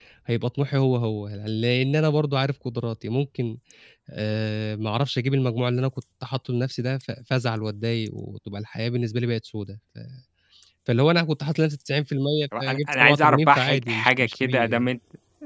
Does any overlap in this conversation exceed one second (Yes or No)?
Yes